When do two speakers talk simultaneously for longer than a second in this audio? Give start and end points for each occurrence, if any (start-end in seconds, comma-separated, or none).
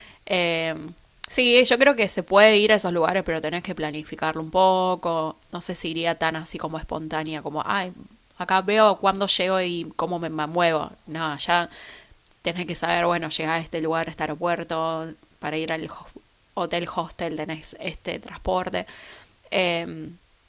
none